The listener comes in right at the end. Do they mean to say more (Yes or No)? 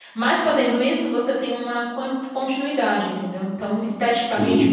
Yes